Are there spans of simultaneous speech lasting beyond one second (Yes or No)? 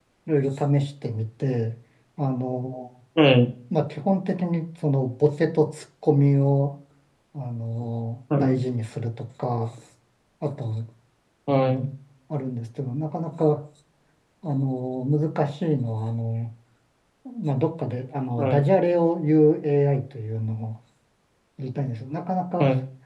No